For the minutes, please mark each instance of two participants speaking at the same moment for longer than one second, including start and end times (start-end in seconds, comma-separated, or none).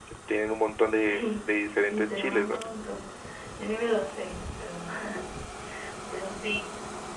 1.0-2.6